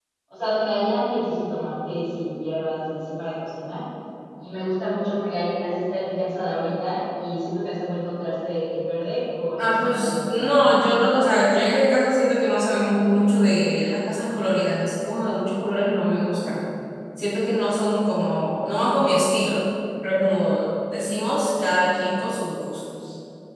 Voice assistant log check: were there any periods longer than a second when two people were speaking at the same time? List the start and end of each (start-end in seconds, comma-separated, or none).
9.6-10.8